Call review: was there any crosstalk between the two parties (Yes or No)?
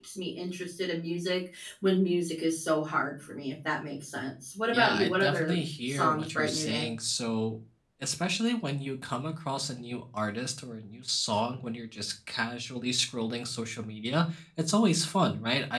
Yes